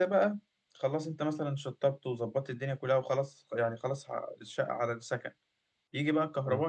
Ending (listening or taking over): listening